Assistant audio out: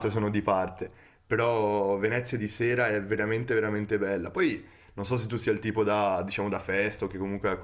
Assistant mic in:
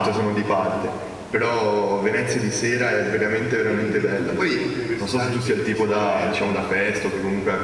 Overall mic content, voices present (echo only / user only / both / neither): both